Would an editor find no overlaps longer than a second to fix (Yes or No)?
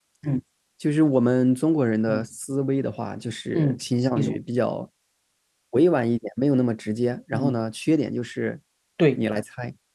Yes